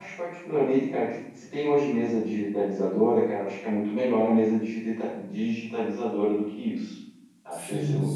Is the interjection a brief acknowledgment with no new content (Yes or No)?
No